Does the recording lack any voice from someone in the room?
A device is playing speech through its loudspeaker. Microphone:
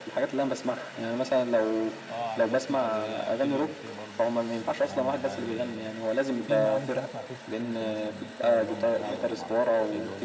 No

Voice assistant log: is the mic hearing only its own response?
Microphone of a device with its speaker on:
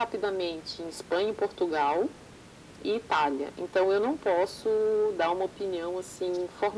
Yes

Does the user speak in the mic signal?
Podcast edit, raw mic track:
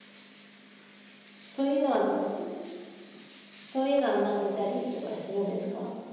Yes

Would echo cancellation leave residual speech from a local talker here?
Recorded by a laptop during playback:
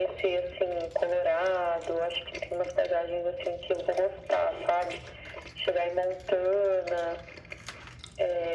No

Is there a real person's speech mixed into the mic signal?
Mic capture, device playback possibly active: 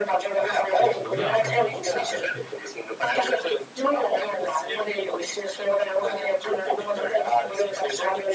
Yes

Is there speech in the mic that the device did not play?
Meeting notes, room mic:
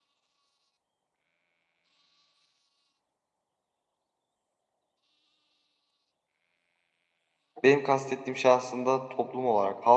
Yes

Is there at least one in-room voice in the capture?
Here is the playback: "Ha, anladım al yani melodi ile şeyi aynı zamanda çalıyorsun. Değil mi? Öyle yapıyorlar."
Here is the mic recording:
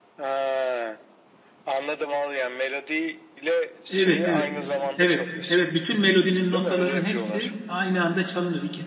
Yes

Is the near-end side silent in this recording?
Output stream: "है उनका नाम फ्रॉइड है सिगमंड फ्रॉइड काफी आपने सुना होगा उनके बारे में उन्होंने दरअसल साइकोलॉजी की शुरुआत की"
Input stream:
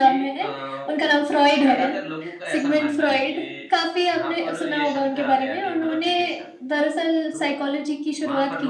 No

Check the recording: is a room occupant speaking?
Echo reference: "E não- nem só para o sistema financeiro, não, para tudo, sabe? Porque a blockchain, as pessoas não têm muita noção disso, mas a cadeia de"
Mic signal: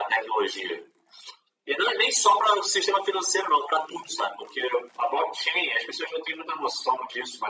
No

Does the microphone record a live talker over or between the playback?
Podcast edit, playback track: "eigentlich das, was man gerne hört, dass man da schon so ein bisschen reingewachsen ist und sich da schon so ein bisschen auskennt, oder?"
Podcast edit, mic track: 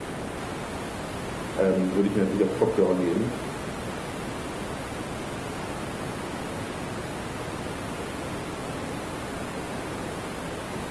Yes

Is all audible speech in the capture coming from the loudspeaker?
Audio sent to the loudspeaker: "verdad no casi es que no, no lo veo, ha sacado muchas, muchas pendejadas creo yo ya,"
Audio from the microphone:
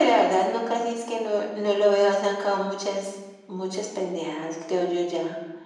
Yes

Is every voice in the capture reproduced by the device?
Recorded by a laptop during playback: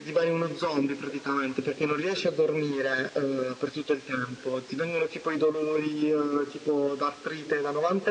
Yes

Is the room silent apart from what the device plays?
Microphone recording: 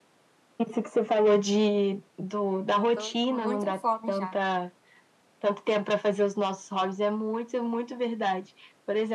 No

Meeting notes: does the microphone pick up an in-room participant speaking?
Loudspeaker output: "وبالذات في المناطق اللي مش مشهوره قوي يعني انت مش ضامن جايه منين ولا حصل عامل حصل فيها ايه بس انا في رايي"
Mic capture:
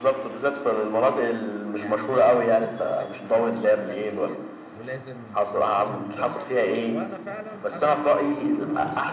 Yes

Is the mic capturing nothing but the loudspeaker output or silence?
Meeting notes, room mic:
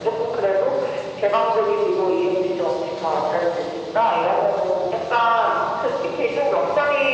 Yes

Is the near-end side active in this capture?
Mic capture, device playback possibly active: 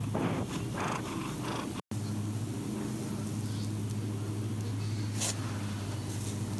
No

